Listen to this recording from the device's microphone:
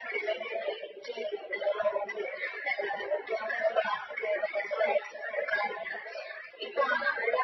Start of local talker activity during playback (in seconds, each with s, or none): none